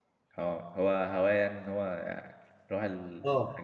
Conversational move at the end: taking over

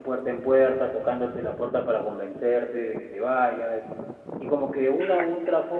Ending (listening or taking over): listening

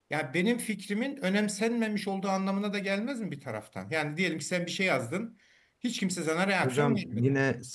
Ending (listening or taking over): taking over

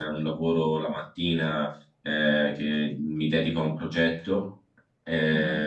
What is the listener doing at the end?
listening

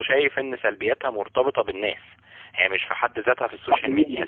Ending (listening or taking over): listening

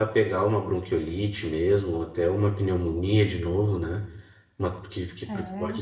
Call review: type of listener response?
listening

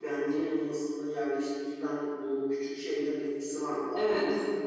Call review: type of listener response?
taking over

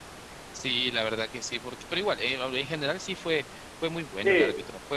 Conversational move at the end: taking over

